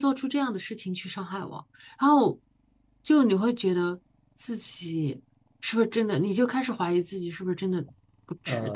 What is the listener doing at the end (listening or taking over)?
taking over